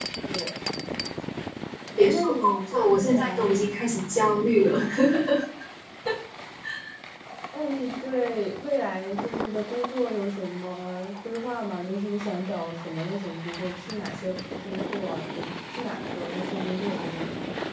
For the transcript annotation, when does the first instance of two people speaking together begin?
2.0 s

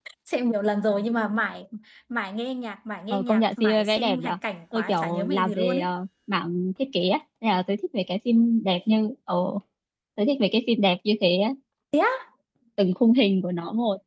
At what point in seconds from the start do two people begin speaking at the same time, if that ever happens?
3.1 s

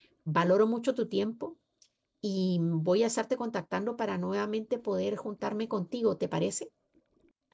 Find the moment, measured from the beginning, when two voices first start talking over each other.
none

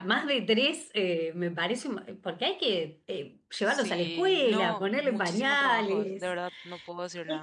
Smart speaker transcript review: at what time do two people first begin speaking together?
3.6 s

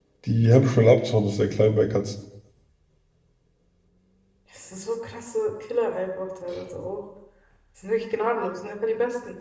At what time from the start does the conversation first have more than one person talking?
none

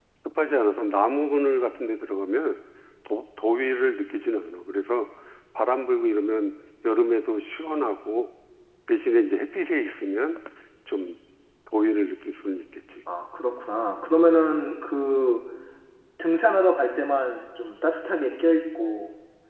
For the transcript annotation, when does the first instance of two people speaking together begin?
none

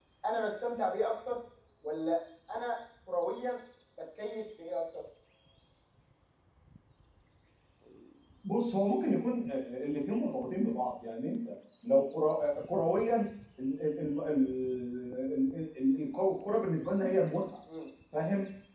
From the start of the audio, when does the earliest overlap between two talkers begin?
none

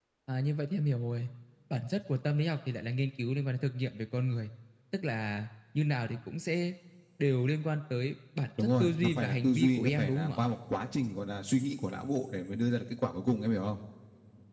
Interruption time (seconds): 8.6 s

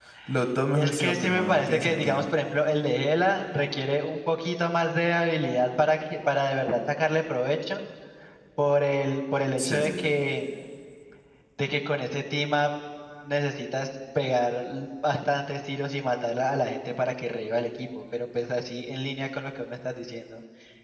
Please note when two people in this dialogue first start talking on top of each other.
0.7 s

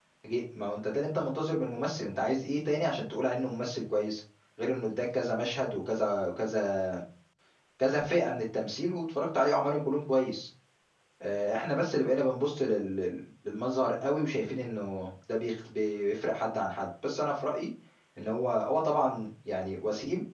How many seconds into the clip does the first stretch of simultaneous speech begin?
none

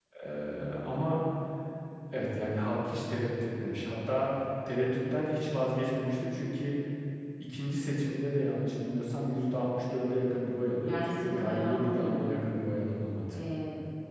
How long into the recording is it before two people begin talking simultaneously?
10.8 s

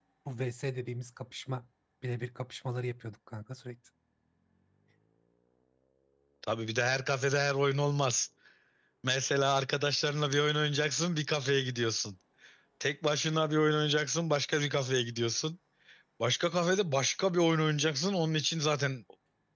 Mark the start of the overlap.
none

